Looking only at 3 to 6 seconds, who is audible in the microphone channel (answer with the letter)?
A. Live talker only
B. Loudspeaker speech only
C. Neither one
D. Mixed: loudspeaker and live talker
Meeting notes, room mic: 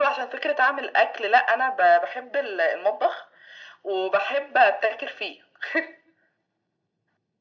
B